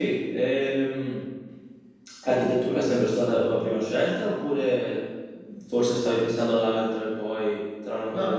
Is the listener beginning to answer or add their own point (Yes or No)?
Yes